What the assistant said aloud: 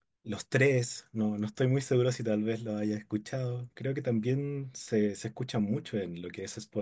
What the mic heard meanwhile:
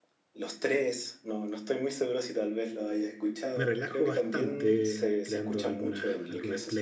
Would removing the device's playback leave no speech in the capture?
No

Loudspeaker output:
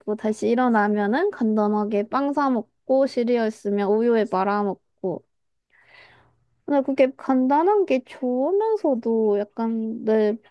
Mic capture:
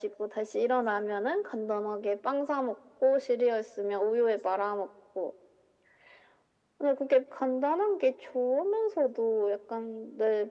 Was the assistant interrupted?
No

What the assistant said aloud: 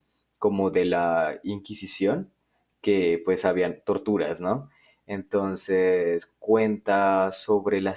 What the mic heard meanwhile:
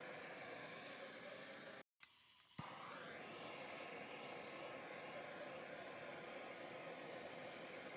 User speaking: No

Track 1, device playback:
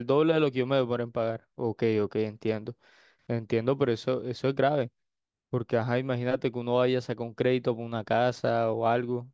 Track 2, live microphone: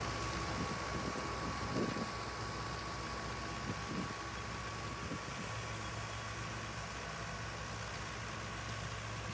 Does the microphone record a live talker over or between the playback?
No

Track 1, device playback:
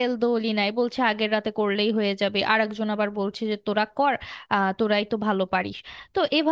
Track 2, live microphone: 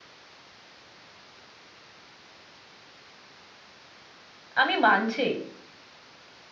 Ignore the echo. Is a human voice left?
Yes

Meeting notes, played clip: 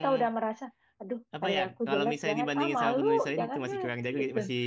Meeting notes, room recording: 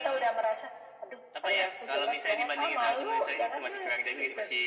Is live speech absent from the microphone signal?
Yes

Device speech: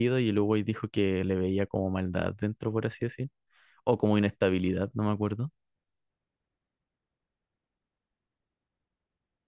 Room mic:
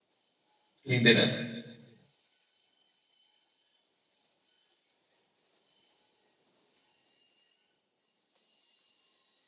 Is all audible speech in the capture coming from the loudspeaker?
No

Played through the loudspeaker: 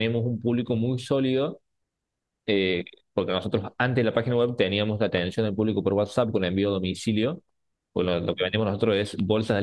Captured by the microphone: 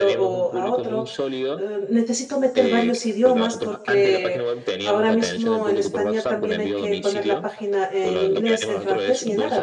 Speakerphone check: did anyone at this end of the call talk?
Yes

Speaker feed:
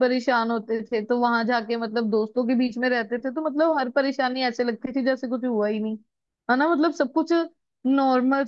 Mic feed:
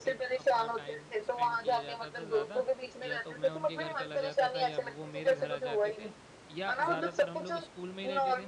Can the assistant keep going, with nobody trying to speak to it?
No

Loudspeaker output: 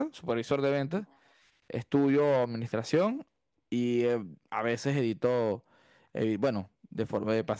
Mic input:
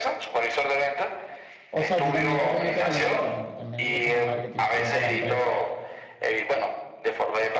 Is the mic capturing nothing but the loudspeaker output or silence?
No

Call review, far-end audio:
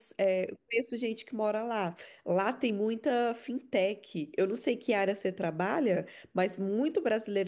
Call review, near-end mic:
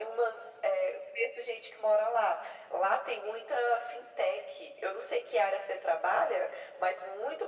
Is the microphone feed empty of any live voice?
Yes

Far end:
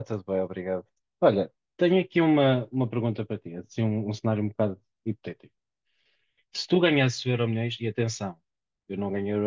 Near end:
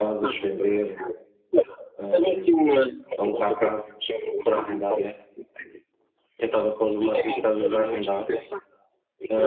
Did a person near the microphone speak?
Yes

